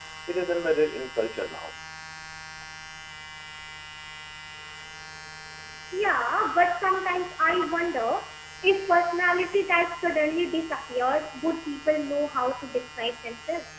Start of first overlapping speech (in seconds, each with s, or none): none